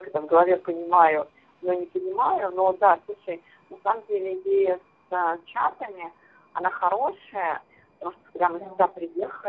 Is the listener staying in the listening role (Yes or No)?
Yes